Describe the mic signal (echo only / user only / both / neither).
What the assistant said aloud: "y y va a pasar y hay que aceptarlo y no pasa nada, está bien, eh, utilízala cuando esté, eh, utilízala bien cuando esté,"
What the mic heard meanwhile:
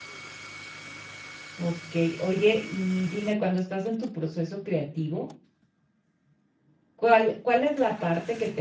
user only